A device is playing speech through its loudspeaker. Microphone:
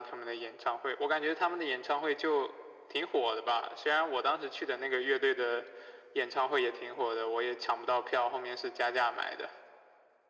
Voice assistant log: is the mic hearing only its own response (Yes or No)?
Yes